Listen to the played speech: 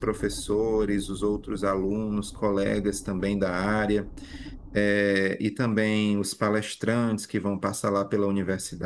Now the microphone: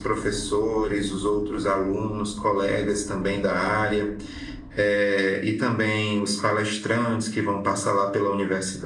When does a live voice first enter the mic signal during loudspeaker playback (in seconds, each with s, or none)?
none